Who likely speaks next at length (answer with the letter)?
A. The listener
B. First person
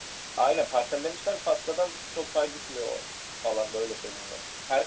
B